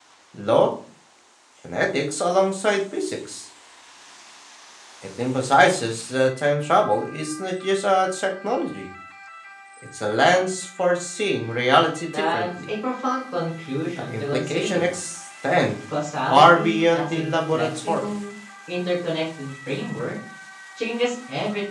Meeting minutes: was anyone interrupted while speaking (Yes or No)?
Yes